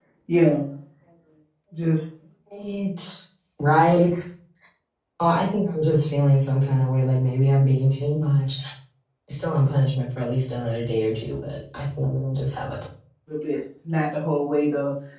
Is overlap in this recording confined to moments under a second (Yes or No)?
Yes